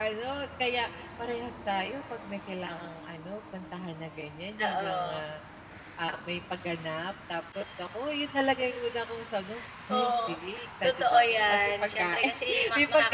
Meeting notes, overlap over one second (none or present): present